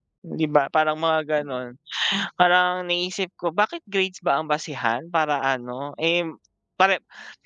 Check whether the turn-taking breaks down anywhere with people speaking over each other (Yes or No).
No